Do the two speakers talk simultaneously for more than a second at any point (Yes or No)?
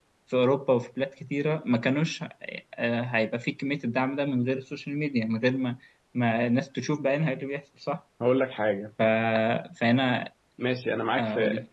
No